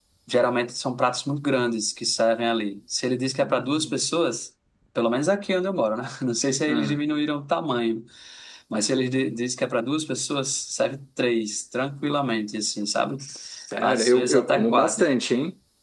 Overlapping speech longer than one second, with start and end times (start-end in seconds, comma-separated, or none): 13.8-15.1